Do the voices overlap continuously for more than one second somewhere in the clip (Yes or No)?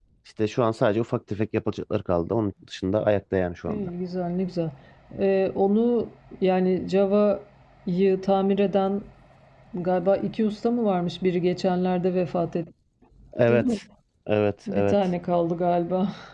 No